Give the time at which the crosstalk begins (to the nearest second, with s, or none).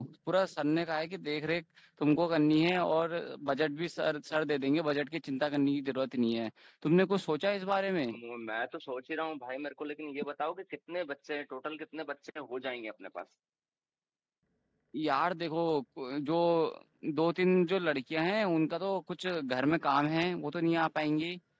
none